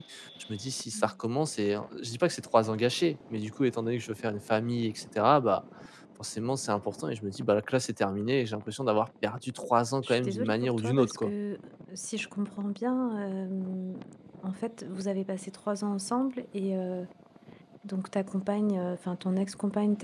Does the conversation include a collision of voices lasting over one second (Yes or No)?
Yes